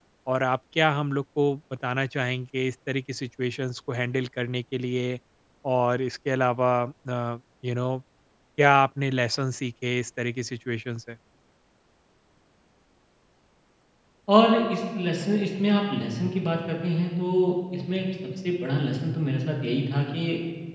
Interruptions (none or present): none